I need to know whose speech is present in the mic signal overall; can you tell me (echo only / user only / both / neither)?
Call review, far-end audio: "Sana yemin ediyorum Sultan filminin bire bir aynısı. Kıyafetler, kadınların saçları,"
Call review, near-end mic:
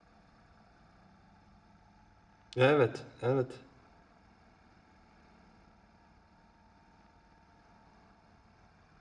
user only